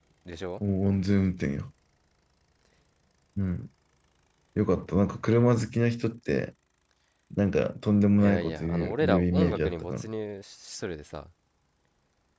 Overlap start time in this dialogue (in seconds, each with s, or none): 8.2 s